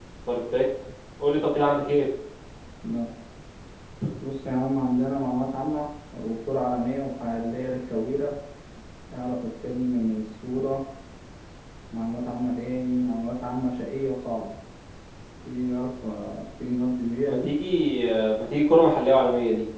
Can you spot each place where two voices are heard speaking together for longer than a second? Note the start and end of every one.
none

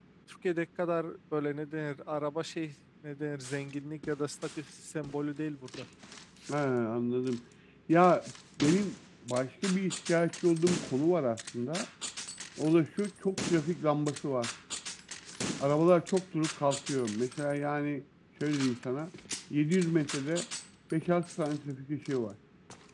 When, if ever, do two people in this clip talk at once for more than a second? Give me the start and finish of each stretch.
none

